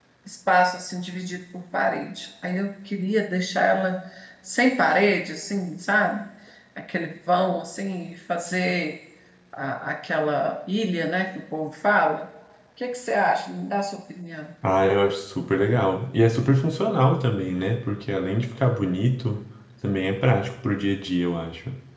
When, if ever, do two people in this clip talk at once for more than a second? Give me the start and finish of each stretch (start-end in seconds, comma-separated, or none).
none